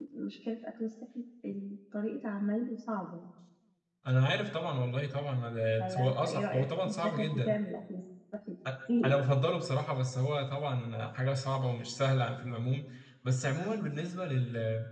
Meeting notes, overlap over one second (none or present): present